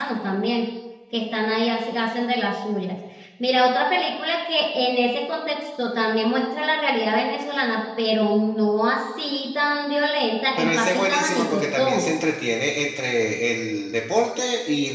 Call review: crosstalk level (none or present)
present